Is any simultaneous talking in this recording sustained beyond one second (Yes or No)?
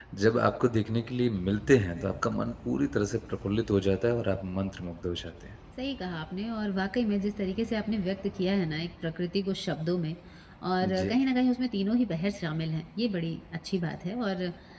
No